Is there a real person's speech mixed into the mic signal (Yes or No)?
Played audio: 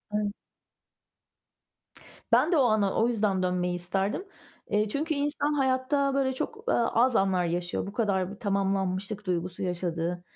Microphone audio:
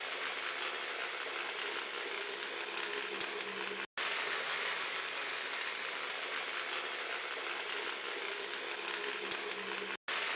No